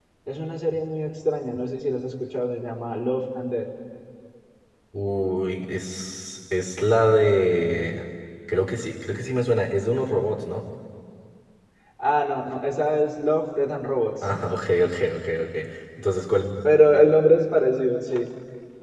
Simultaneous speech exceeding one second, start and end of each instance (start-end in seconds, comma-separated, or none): none